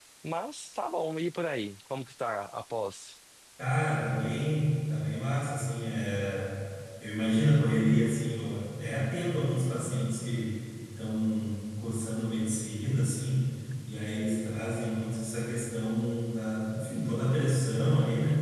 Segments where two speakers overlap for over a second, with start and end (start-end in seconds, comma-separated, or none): none